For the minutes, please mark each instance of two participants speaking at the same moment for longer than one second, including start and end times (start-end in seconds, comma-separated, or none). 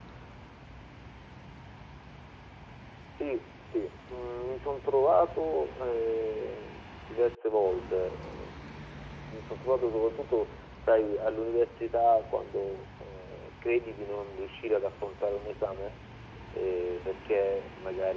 none